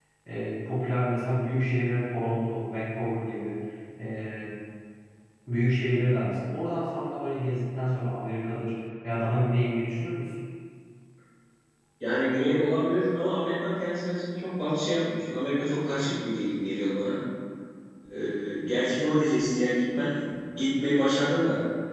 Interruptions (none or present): none